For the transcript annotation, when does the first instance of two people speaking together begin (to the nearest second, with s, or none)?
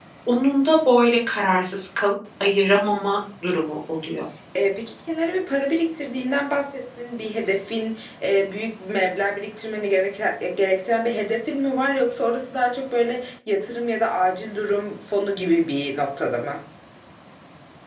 none